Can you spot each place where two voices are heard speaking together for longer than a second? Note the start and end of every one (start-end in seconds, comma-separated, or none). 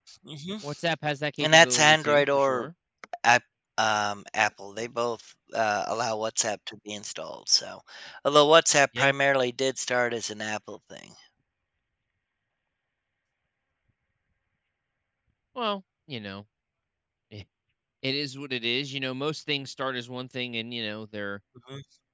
1.4-2.6